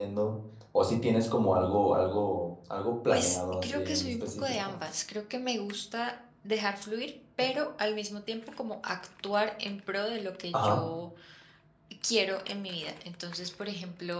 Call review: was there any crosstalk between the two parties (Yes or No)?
Yes